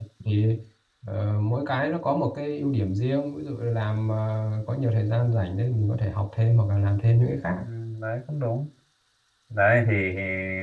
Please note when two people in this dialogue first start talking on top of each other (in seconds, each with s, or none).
none